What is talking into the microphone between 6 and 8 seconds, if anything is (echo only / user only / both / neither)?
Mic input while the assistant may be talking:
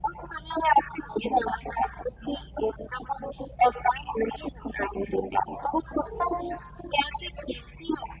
echo only